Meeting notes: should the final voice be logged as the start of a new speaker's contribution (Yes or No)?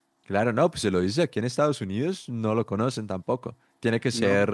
Yes